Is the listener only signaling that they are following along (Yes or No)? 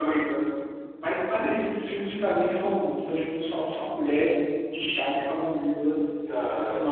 Yes